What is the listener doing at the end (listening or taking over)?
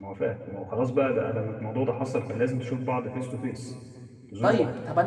taking over